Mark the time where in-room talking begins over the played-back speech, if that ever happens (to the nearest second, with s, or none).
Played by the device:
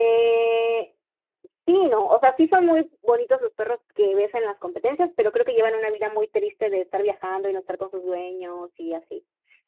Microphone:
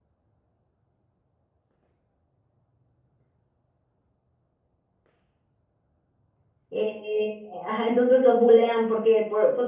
7 s